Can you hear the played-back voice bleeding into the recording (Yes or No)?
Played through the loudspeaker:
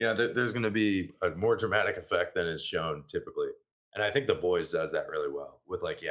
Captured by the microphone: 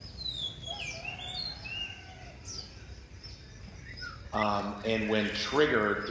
No